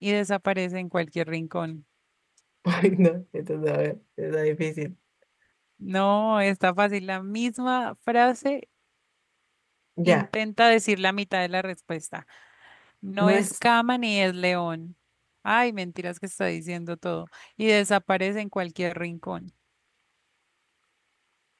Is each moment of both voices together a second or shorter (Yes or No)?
Yes